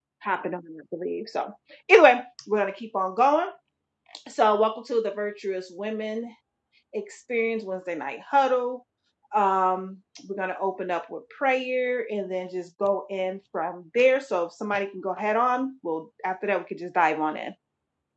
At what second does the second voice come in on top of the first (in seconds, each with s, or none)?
none